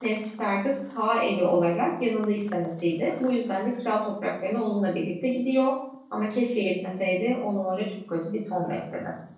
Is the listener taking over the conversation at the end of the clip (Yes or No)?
Yes